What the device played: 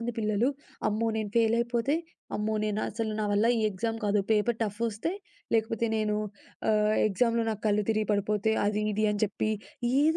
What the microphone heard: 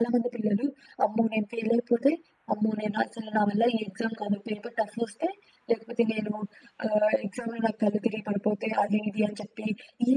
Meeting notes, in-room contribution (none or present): none